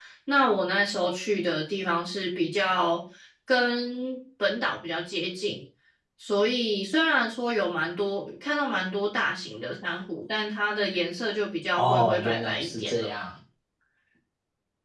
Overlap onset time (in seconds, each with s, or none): 11.7 s